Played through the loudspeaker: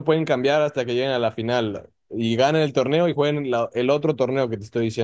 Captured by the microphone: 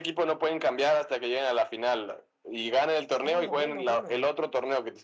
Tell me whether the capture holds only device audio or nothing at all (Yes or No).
No